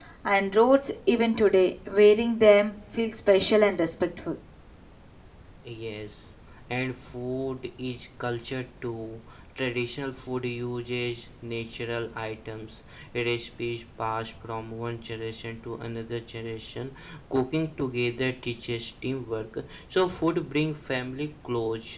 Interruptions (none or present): none